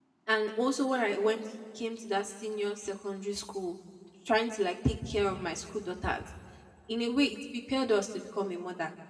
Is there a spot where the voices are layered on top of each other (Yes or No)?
No